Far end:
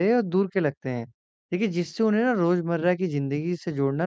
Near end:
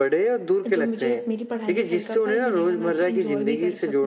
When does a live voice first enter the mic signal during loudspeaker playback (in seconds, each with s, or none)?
0.6 s